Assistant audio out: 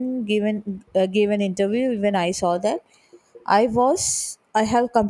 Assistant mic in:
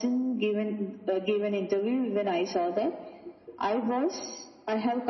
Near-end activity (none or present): none